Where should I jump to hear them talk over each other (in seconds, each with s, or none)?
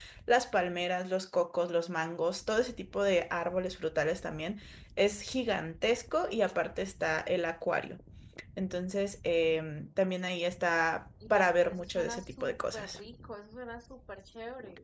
11.2 s